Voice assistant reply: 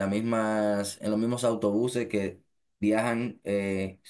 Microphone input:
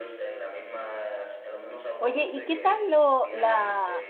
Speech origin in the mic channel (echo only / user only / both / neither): both